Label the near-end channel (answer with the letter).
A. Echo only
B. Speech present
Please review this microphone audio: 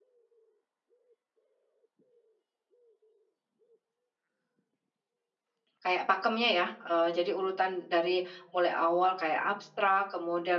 B